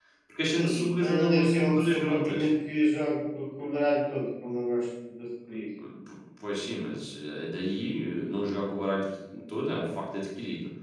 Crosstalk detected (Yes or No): Yes